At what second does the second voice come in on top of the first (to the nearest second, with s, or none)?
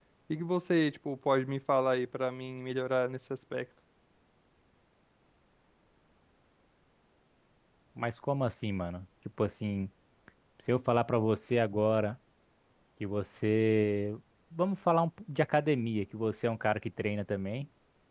none